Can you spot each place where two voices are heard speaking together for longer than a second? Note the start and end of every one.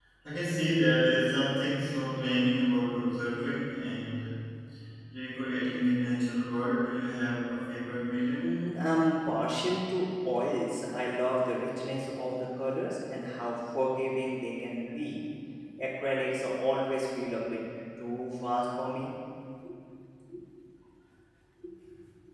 none

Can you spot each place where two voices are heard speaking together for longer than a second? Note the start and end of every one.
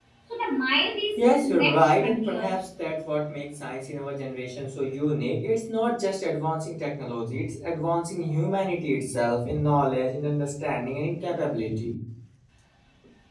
1.2-2.5

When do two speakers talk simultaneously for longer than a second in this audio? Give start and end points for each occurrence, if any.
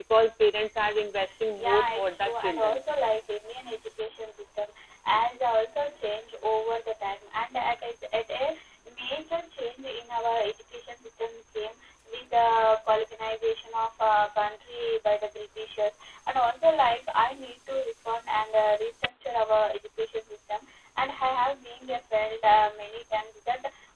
1.6-2.8

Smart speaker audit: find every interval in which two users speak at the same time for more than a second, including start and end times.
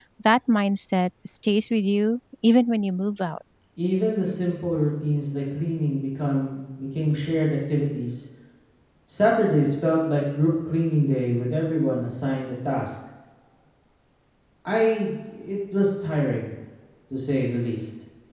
none

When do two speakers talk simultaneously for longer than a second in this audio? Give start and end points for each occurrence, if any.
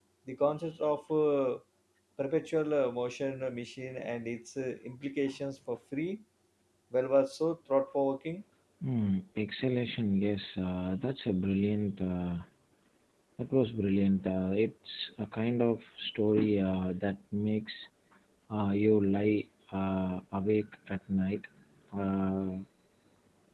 none

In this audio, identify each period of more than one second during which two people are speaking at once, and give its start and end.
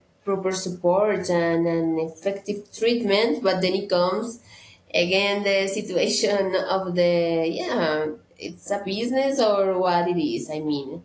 none

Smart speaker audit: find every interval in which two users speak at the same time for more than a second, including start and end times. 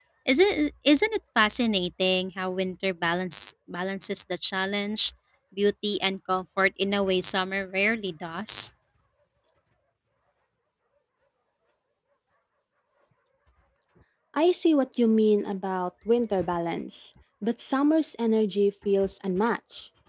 none

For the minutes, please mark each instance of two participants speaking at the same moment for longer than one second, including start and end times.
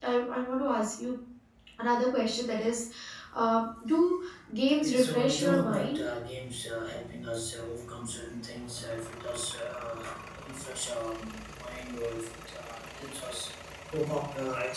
4.8-6.0

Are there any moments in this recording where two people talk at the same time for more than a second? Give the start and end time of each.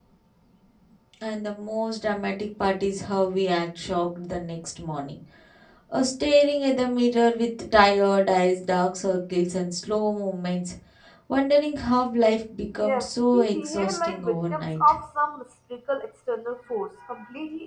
12.8-15.0

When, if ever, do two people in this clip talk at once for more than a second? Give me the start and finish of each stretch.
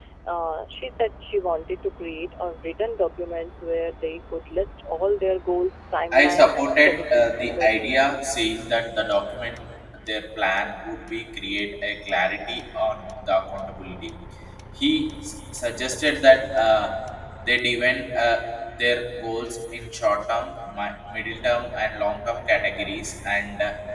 6.1-7.9

